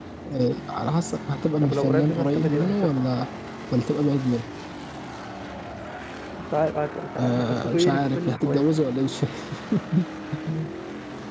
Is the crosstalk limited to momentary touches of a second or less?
No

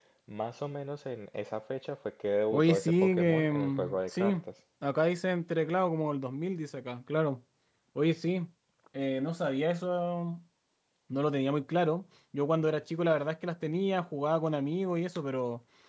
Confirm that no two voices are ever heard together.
No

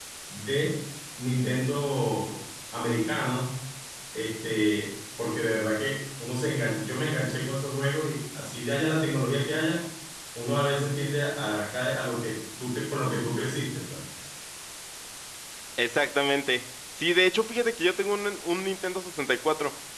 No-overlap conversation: Yes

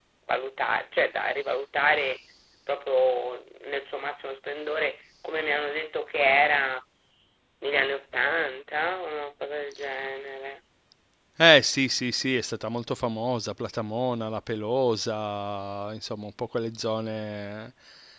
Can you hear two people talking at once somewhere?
No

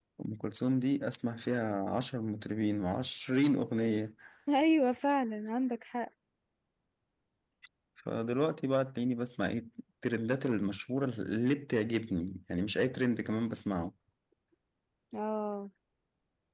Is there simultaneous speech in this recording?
No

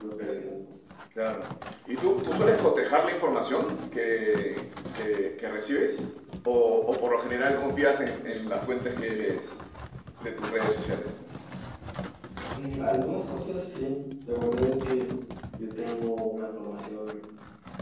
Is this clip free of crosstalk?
Yes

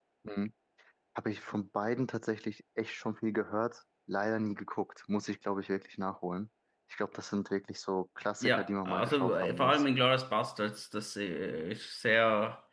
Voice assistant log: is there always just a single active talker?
No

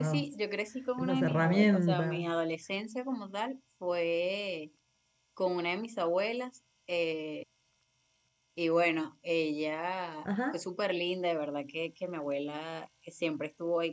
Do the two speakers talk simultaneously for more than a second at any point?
Yes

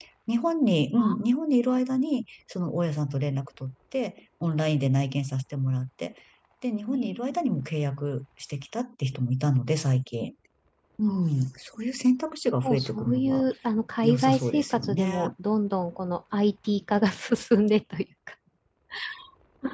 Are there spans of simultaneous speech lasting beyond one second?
Yes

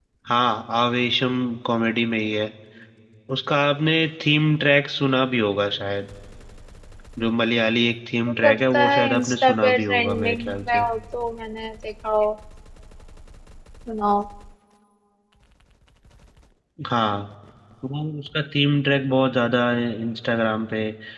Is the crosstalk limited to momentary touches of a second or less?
No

